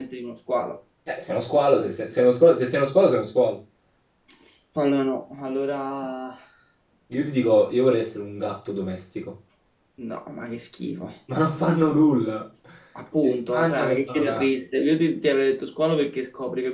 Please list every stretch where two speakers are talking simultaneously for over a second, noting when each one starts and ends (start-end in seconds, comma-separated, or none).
13.2-14.4